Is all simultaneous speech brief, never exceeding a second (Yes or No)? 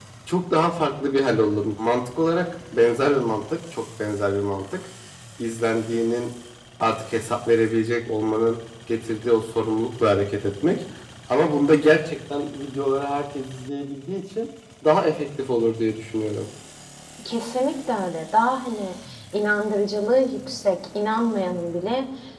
Yes